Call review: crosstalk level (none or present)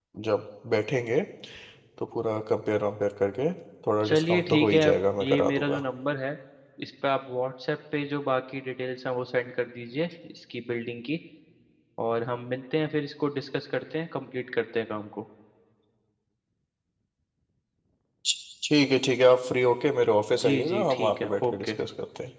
present